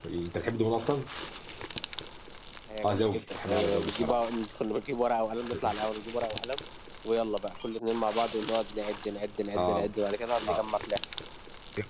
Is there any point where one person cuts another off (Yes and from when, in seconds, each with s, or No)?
Yes, from 2.8 s